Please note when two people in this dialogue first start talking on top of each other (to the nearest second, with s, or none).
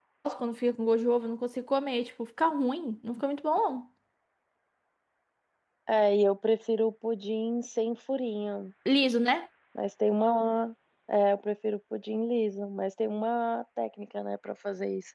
none